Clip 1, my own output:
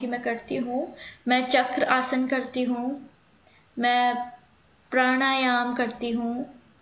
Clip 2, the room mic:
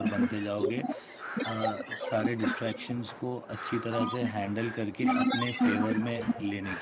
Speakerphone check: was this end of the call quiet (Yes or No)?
No